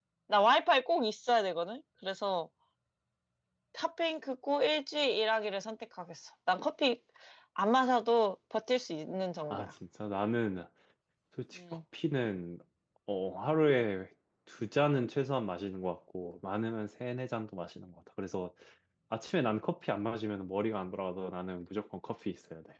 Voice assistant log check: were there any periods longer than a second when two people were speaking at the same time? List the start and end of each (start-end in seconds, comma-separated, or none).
none